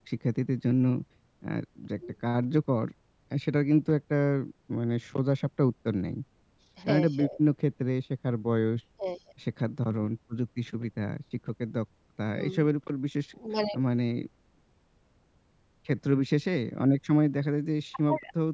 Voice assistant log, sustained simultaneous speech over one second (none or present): none